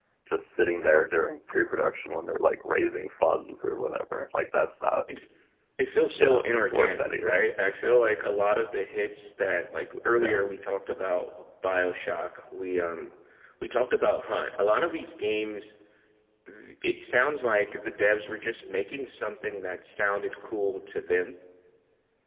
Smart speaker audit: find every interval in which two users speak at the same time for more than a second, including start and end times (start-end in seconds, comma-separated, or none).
6.2-7.5